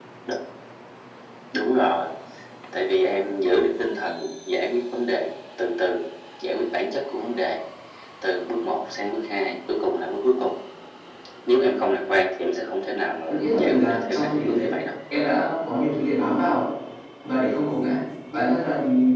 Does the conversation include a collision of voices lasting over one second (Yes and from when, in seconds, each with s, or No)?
Yes, from 13.3 s